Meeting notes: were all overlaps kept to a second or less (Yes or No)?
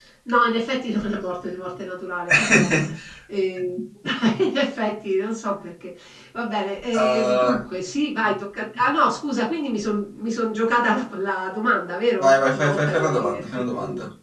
No